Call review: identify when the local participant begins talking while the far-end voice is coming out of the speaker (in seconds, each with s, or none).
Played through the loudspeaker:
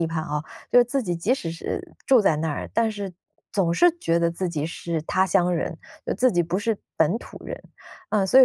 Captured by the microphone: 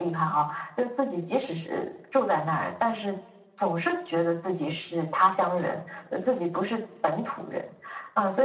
none